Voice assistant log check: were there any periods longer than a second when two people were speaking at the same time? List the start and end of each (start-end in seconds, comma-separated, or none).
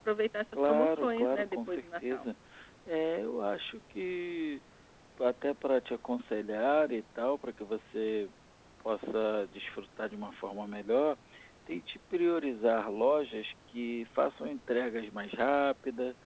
0.7-2.2